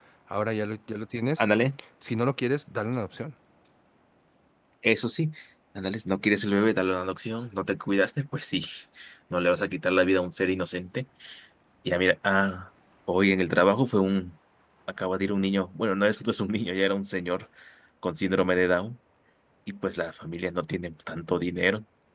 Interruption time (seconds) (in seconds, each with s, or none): none